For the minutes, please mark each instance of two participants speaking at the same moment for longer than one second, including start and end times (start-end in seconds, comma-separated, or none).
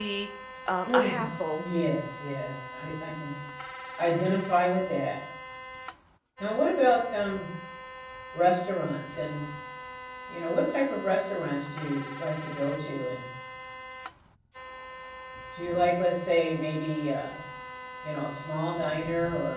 none